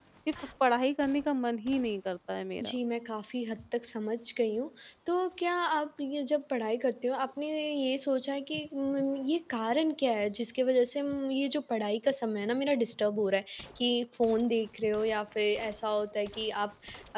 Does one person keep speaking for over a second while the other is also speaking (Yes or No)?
No